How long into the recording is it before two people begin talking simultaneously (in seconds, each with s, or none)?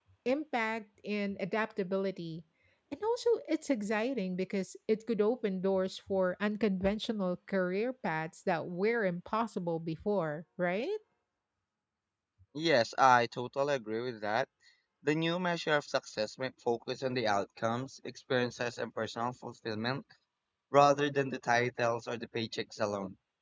none